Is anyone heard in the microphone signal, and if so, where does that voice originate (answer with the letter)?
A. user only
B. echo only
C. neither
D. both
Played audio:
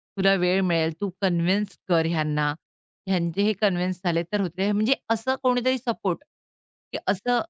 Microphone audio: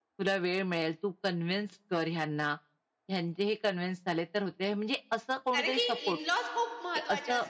D